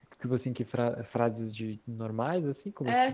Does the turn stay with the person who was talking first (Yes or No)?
No